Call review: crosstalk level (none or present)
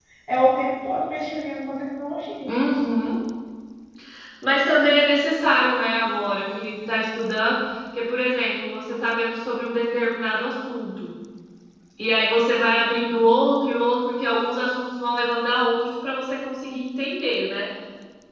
none